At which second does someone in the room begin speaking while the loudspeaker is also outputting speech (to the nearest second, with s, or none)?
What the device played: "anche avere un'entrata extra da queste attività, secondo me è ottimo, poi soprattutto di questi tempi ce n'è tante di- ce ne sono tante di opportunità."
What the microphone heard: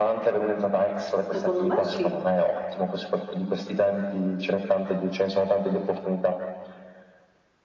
1 s